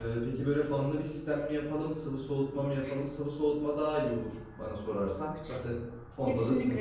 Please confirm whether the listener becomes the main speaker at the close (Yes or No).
Yes